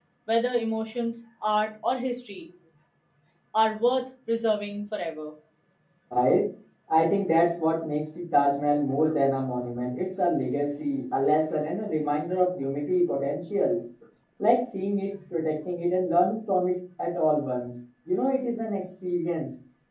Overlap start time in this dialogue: none

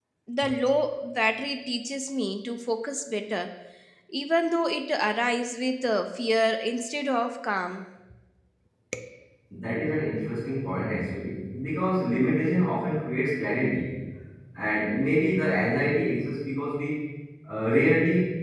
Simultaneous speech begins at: none

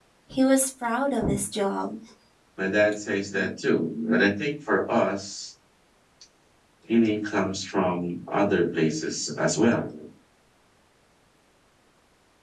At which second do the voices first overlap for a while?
none

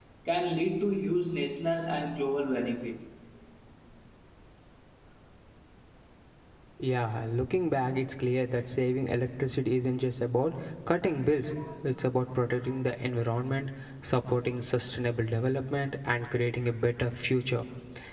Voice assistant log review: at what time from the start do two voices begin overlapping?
none

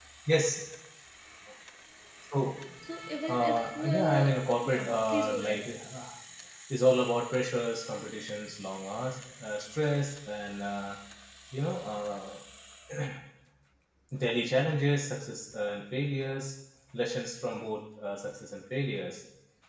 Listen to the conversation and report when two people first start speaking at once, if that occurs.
3.3 s

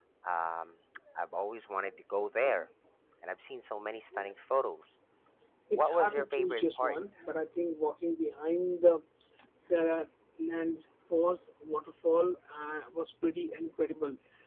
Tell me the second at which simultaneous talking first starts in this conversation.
5.8 s

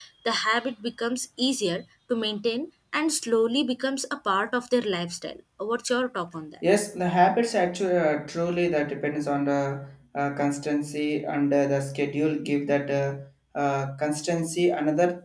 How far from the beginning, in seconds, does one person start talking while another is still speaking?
none

